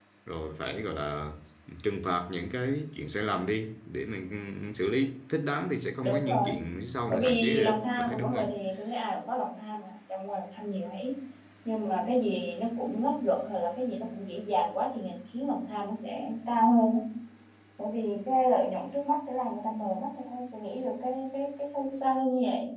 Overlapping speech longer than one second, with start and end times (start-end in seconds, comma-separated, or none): 7.1-8.5